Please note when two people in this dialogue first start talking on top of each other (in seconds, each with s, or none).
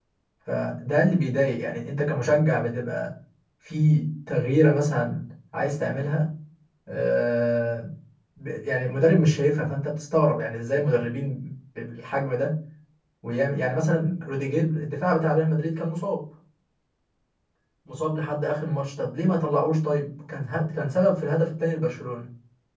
none